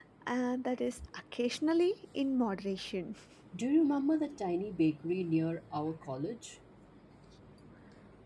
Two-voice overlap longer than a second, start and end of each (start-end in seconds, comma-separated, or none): none